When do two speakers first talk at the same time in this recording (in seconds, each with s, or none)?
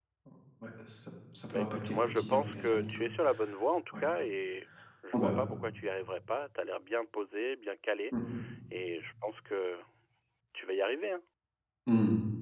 1.5 s